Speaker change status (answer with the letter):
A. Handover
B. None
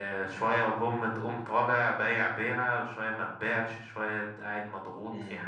B